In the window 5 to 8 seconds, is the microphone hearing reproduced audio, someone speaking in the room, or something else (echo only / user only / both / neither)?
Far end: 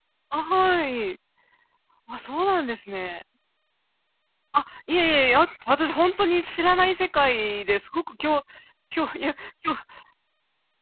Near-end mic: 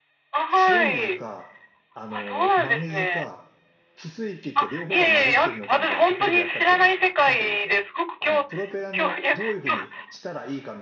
both